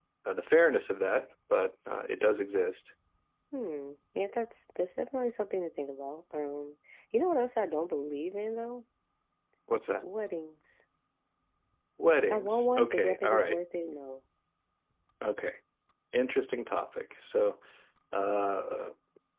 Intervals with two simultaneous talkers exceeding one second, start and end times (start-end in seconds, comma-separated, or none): 12.3-13.6